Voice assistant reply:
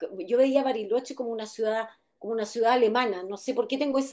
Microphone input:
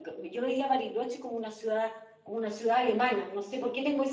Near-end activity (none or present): none